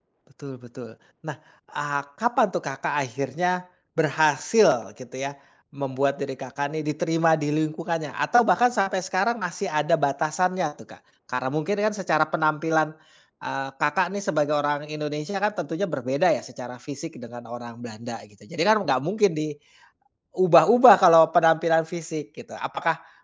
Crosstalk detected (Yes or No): No